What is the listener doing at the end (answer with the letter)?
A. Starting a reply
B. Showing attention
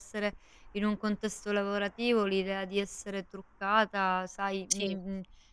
B